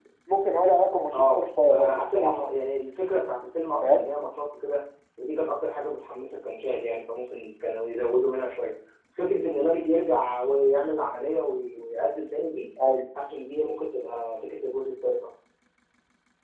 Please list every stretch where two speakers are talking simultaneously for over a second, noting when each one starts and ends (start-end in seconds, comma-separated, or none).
1.1-2.4